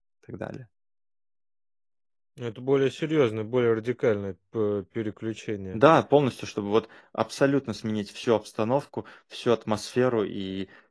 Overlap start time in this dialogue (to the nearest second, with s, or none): none